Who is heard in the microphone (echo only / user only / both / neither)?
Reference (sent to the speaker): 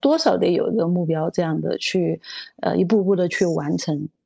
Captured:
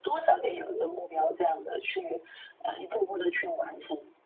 echo only